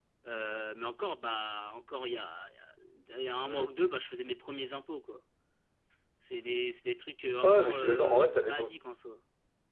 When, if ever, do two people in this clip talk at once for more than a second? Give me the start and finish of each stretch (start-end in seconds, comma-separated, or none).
7.4-8.8